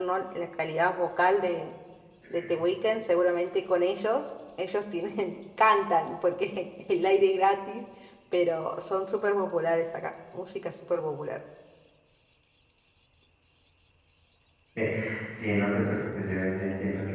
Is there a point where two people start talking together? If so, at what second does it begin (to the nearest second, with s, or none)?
none